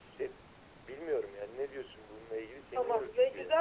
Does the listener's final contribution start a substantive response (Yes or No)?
Yes